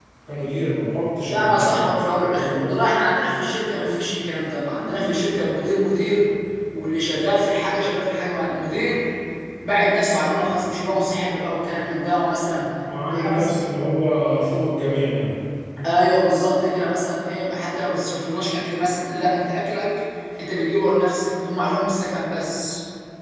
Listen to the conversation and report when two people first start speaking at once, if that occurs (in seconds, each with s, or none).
1.3 s